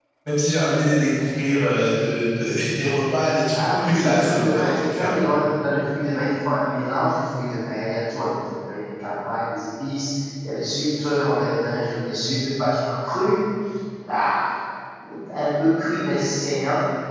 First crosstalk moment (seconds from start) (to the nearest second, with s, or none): 4 s